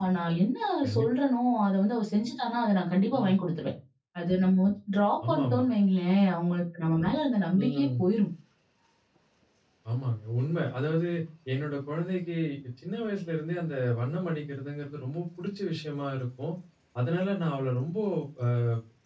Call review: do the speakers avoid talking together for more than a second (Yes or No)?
Yes